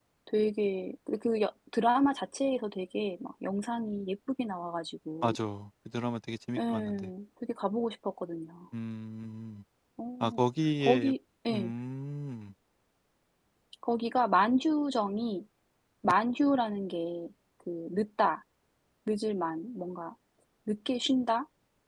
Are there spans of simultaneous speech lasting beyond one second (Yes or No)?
No